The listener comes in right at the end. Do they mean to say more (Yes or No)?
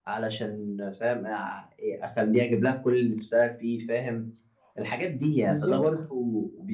No